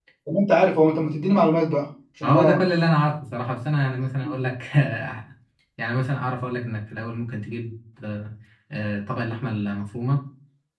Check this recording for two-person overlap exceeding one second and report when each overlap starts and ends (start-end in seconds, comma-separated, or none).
none